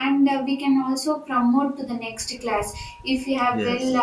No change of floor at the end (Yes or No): Yes